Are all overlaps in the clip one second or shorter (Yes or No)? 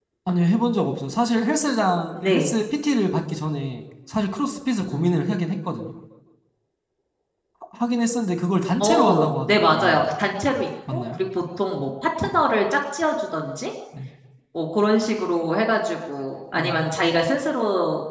No